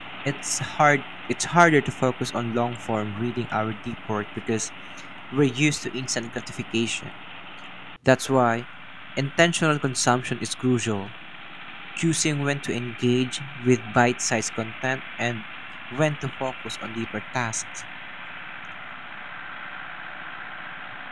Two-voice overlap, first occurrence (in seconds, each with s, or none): none